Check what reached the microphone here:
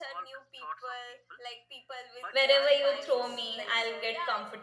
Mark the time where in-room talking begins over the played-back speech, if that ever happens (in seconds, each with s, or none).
2.3 s